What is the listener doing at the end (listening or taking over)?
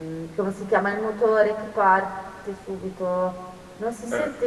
listening